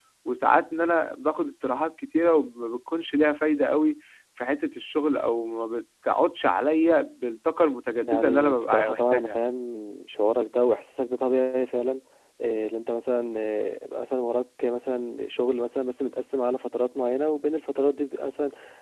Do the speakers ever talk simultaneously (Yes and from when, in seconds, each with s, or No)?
Yes, from 8.1 s